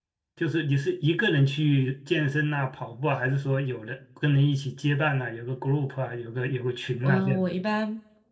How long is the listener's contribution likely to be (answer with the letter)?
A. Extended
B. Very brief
A